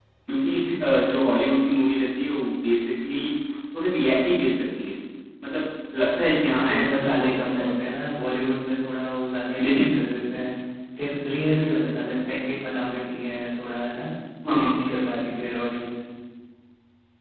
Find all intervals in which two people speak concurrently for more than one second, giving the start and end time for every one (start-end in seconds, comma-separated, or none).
6.4-7.7